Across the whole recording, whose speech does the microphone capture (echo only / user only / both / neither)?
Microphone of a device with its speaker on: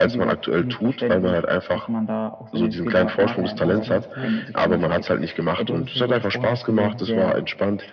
both